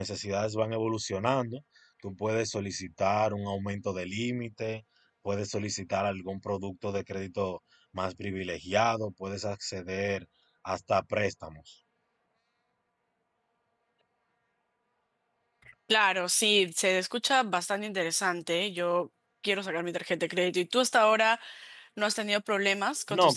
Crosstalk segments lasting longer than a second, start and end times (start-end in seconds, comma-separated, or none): none